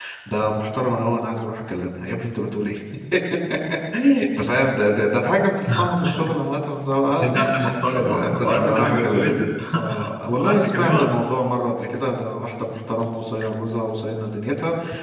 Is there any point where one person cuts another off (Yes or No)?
Yes